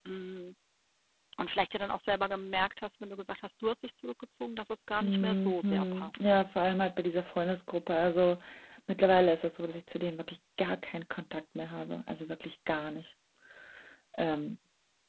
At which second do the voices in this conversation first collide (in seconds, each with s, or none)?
5.0 s